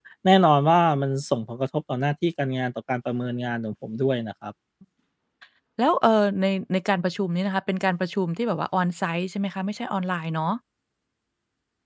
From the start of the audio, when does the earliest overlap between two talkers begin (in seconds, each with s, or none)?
none